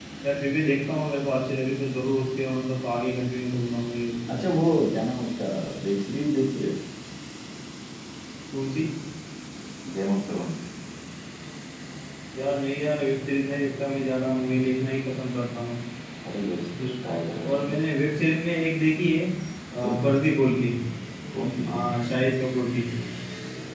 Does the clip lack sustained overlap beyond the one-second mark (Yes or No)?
Yes